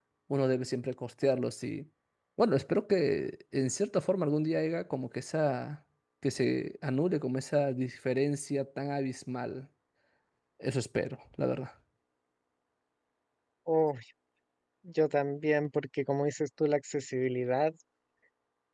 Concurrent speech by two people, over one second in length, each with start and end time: none

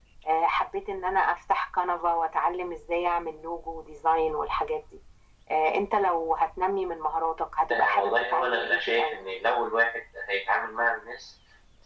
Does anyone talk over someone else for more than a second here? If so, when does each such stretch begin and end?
7.7-9.2

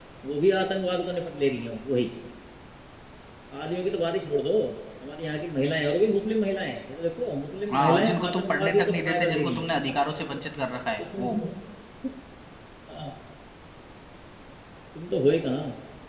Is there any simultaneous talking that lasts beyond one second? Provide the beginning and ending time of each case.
7.7-9.6

